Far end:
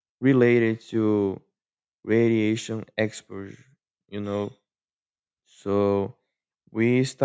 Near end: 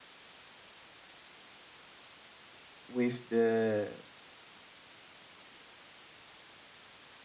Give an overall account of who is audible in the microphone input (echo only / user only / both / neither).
user only